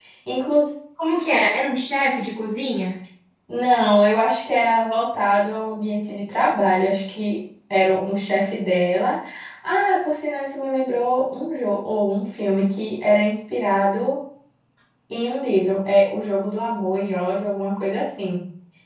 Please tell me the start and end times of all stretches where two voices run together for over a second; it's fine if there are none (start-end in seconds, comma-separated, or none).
none